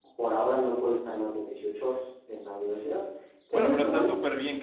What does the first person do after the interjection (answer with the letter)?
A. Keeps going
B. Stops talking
B